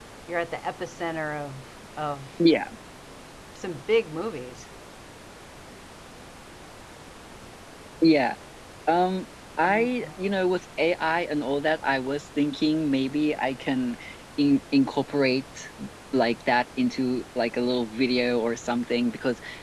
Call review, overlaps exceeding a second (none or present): none